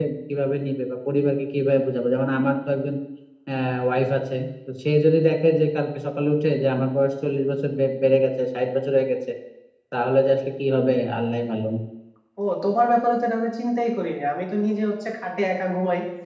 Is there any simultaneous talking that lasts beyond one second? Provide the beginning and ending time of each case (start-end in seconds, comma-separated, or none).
none